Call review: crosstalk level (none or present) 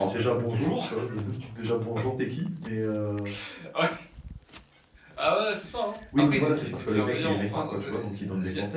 present